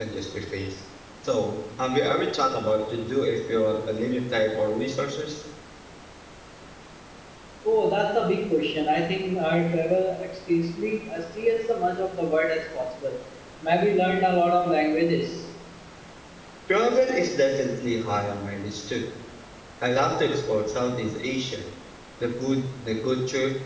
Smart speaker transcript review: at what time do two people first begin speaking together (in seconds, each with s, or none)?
none